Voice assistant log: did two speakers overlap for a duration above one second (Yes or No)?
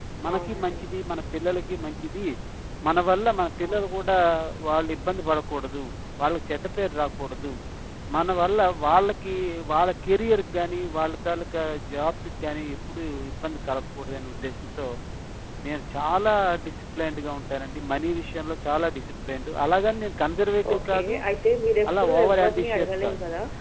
Yes